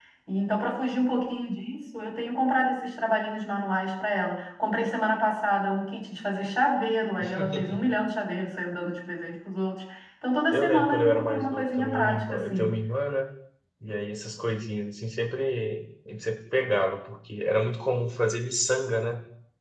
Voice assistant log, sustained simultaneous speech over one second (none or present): present